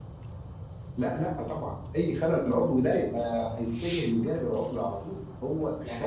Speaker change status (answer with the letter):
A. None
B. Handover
B